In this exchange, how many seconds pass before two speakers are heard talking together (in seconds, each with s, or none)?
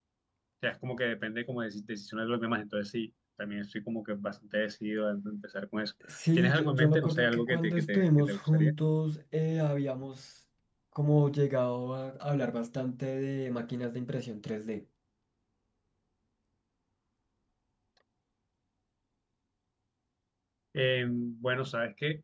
6.0 s